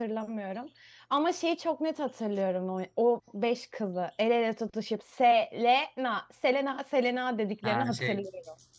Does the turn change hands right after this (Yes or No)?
Yes